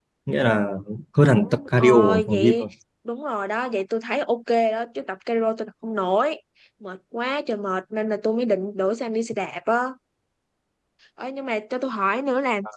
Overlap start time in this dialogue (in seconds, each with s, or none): 1.3 s